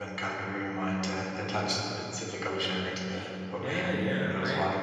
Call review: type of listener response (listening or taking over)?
taking over